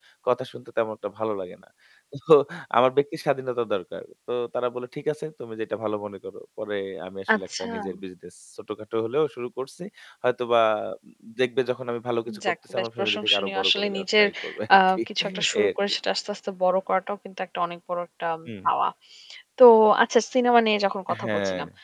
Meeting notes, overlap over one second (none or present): present